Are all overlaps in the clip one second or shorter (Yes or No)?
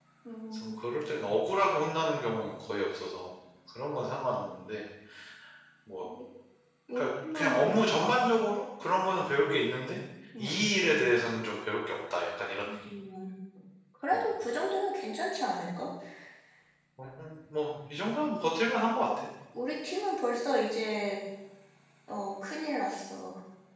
No